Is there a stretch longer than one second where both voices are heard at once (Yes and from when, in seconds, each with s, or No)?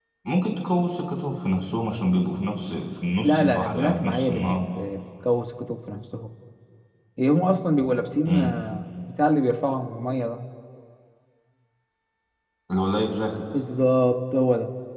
Yes, from 3.2 s